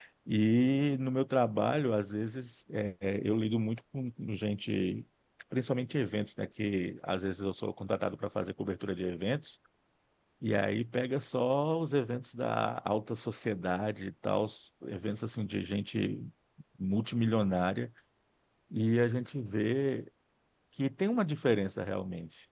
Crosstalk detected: No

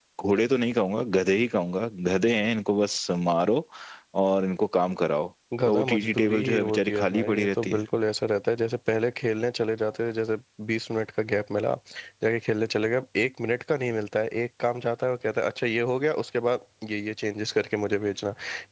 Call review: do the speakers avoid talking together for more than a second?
No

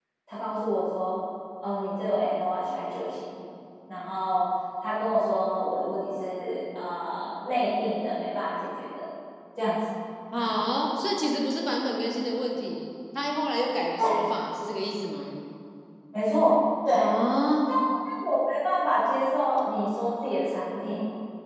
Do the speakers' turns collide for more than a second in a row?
No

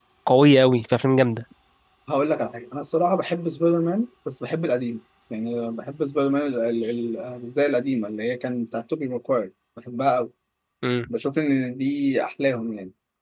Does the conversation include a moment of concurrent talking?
No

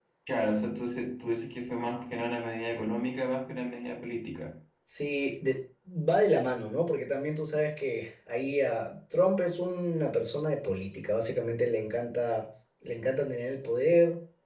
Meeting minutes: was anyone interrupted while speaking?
No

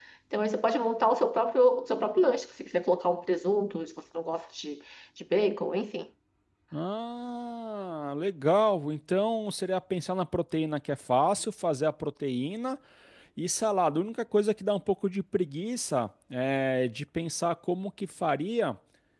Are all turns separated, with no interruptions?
Yes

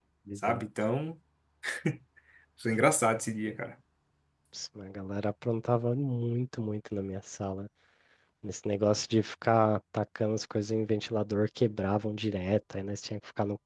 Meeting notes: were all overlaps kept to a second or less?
Yes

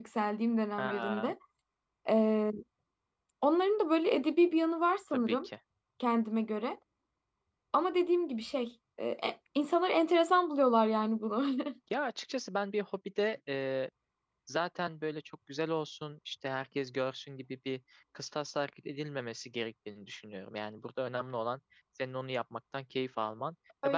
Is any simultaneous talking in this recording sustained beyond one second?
No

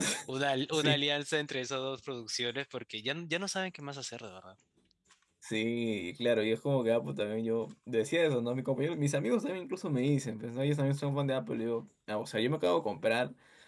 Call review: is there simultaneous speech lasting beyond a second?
No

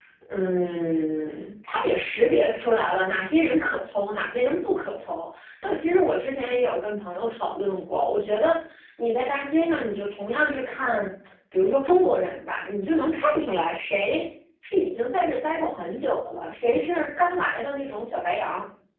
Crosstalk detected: No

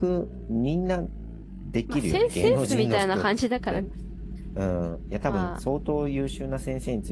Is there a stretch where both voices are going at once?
Yes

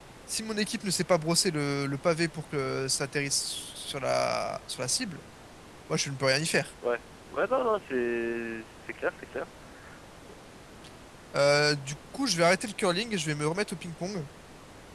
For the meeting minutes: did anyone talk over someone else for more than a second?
No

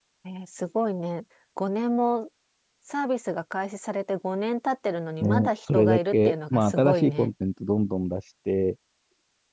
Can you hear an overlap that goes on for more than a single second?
Yes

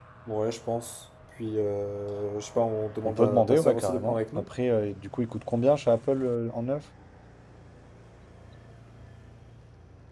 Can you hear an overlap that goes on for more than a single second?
Yes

